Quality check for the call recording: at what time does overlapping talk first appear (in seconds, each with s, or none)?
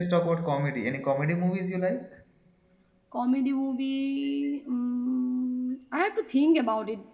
none